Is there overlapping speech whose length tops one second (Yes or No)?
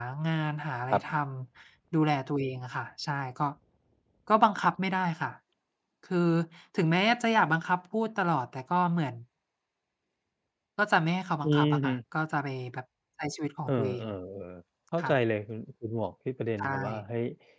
No